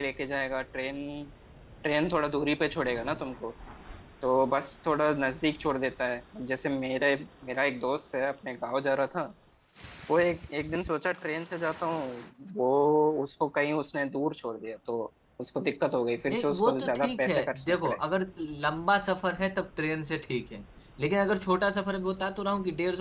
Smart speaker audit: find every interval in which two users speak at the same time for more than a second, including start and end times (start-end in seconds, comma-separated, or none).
16.3-18.0